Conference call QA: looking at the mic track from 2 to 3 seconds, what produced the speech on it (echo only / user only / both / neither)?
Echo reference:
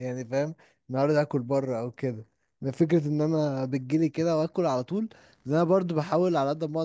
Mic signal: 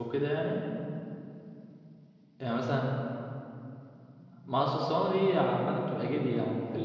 user only